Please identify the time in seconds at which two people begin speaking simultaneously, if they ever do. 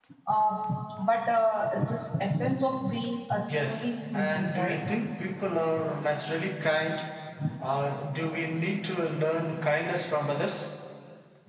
3.5 s

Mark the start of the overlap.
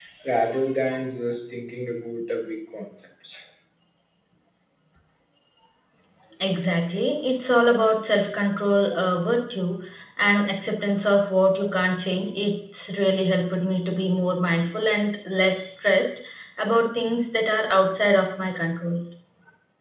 none

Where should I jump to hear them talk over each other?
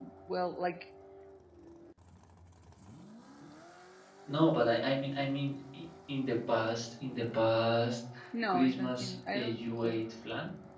8.5 s

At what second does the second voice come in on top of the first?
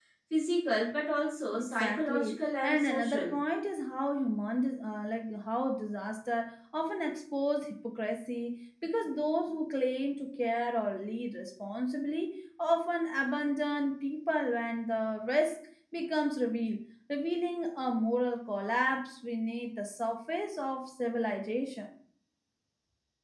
1.6 s

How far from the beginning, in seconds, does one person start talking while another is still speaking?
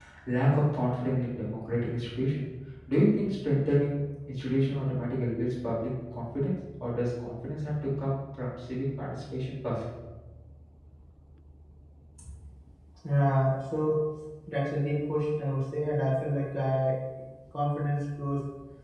none

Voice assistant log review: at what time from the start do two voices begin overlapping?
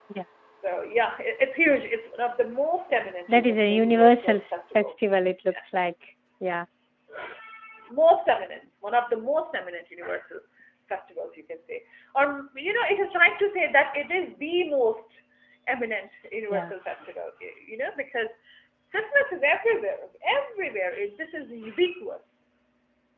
3.3 s

